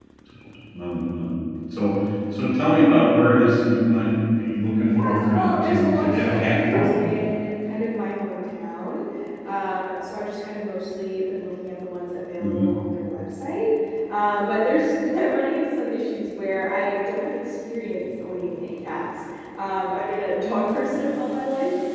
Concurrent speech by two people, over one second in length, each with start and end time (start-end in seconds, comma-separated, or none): 5.0-6.9